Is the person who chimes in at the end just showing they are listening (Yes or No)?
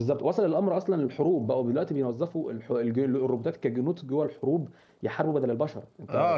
No